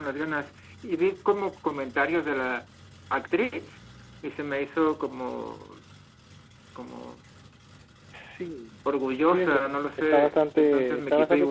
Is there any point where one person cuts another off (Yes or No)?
Yes